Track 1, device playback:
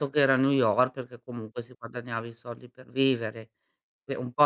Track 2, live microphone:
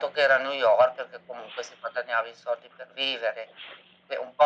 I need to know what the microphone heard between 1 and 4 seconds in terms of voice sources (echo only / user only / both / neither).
echo only